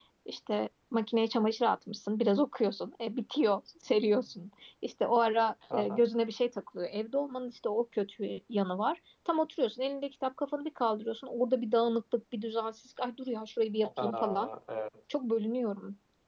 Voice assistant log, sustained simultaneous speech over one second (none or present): none